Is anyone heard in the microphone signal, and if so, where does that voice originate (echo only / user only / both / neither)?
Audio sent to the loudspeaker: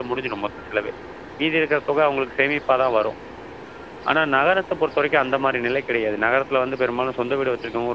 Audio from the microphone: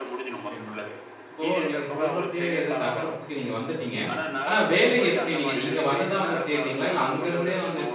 both